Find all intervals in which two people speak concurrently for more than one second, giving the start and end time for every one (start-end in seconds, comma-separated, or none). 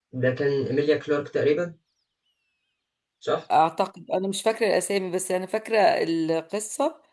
none